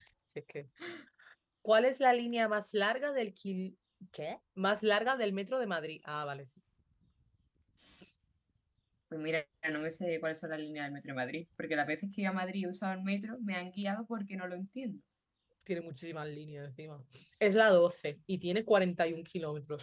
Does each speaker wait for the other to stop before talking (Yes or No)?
Yes